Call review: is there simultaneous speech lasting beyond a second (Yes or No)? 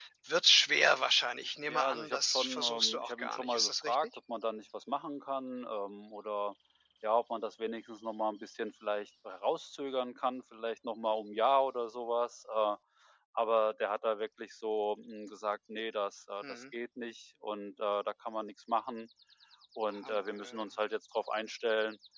Yes